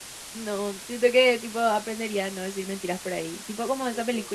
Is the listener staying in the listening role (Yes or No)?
Yes